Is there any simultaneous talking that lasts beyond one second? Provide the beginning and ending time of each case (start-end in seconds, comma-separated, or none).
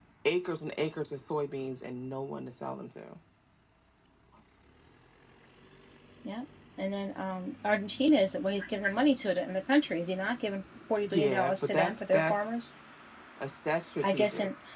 11.0-12.3